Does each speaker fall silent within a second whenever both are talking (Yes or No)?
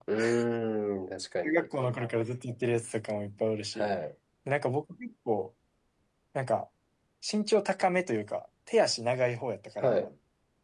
Yes